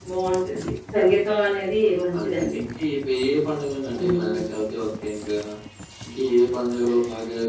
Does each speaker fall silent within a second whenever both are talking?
Yes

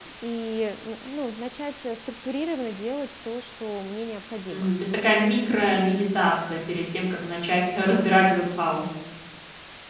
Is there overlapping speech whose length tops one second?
No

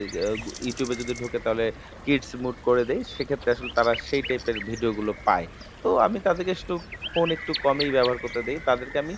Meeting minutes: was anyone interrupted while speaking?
No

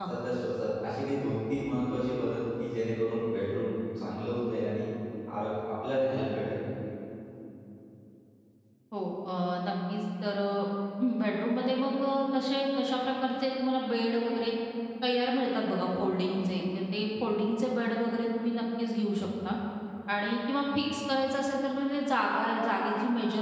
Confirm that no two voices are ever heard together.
Yes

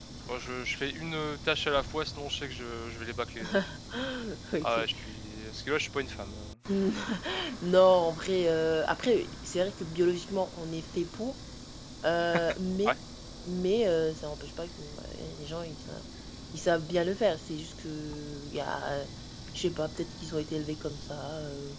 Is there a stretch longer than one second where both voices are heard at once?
No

